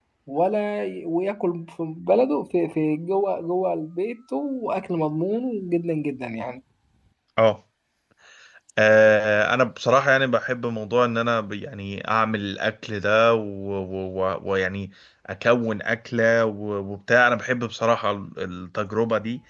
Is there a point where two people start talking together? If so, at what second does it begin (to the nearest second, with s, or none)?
none